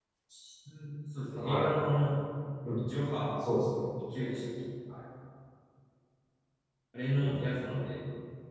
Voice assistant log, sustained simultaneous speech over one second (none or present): none